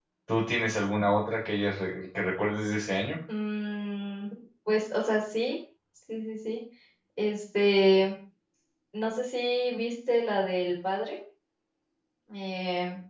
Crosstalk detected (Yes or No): No